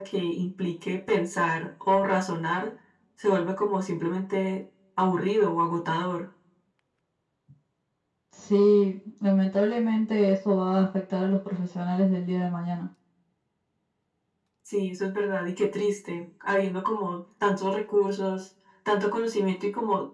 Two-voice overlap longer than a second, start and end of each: none

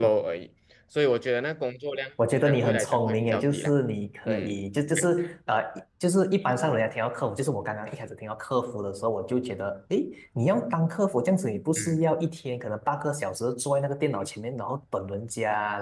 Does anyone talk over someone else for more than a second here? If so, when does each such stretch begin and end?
2.4-3.7

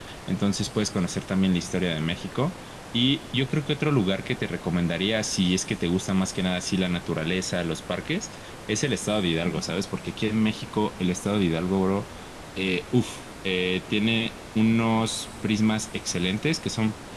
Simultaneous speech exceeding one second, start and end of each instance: none

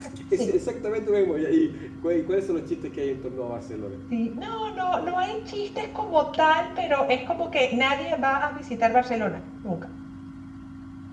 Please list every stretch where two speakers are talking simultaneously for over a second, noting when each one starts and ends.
none

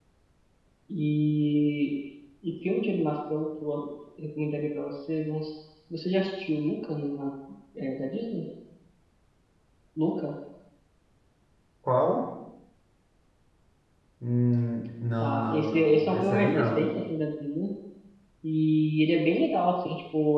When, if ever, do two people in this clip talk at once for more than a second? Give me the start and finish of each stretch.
15.2-16.9

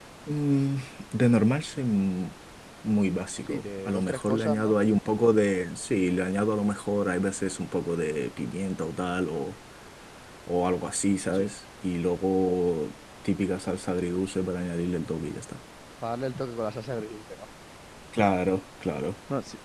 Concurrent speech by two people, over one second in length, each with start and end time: 3.5-4.7

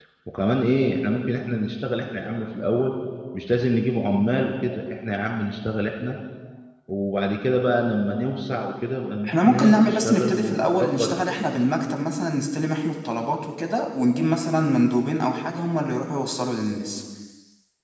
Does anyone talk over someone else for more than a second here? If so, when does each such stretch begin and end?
9.3-11.2

